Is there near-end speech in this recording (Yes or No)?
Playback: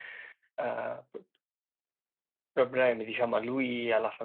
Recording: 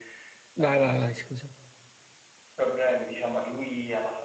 Yes